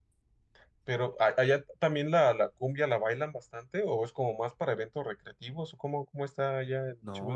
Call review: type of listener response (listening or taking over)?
taking over